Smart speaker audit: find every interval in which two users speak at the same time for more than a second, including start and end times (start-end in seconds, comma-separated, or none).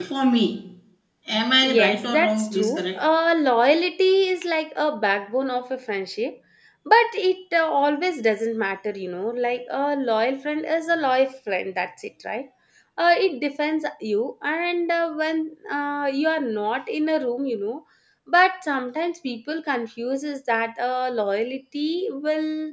1.6-3.0